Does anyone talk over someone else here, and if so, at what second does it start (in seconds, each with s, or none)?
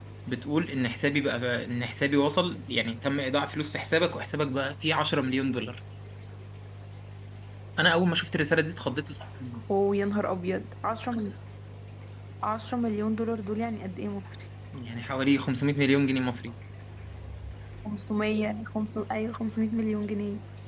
none